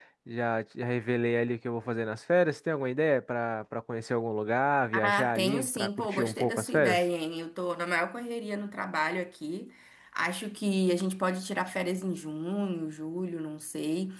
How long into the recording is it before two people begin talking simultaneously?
4.9 s

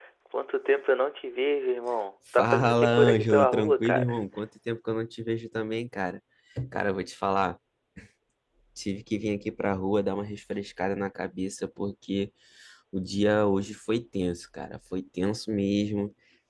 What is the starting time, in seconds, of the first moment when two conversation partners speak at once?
2.3 s

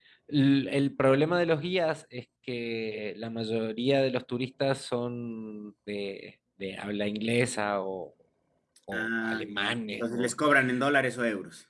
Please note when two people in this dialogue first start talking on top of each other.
8.9 s

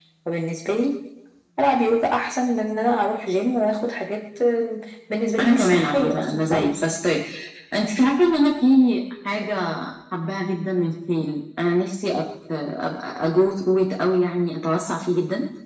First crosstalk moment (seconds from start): 5.4 s

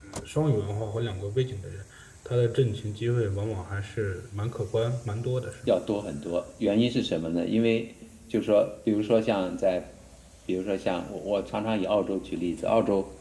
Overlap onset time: none

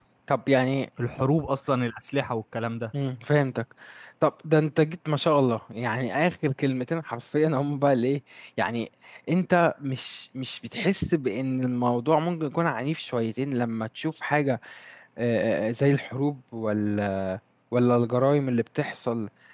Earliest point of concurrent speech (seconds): none

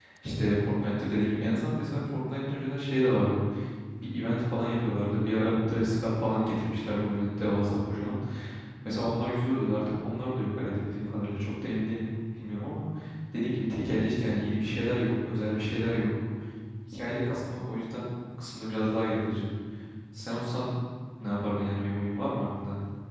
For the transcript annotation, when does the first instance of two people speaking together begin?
none

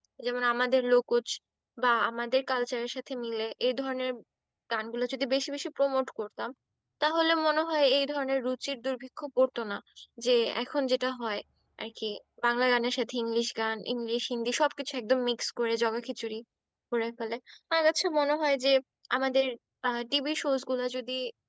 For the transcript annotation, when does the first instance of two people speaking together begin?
none

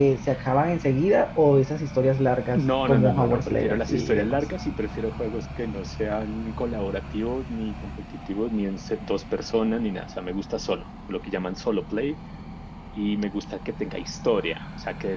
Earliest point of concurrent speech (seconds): 2.5 s

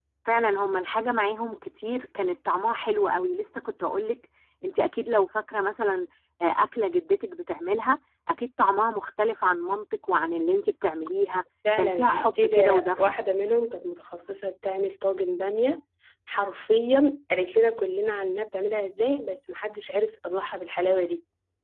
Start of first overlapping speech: 11.6 s

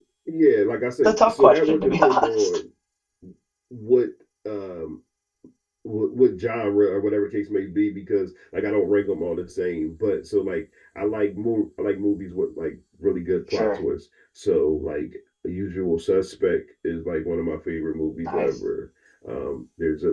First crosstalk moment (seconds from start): 1.0 s

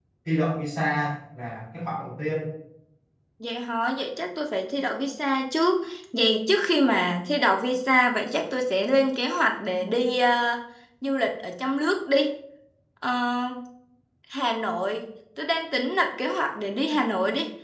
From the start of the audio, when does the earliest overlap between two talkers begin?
none

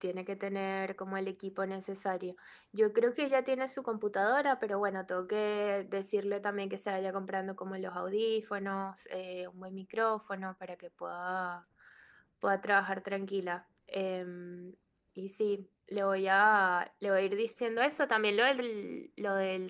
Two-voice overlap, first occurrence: none

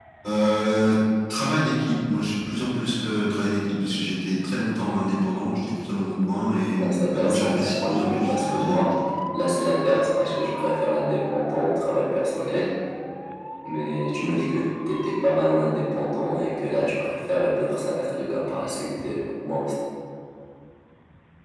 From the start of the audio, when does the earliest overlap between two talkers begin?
6.8 s

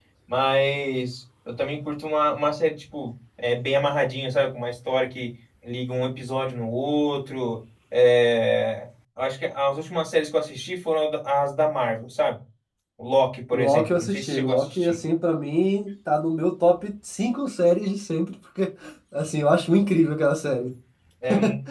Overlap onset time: 13.5 s

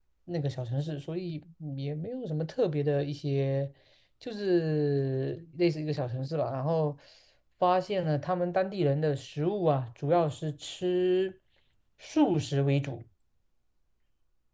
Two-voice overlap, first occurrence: none

